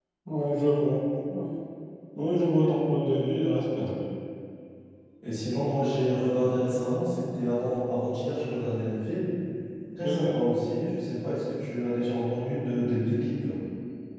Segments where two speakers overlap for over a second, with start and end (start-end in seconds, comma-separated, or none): none